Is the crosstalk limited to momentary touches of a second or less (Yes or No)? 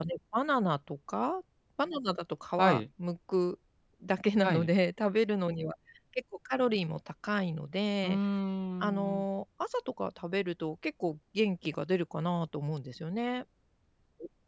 Yes